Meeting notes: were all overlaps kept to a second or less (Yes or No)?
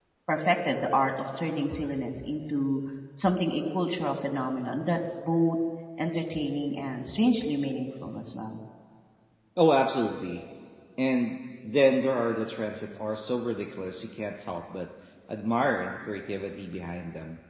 Yes